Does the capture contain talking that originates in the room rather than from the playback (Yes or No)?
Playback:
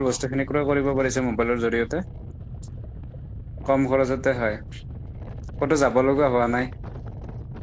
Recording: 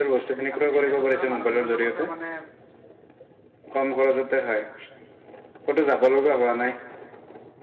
Yes